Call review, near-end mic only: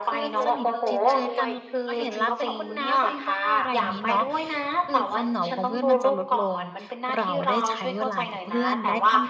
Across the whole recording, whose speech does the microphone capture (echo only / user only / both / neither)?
both